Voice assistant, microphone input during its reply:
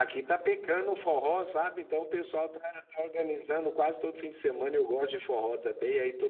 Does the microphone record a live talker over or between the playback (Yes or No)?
Yes